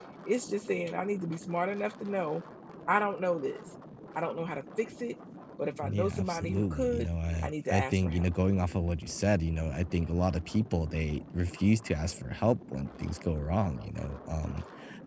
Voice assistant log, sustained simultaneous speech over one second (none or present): present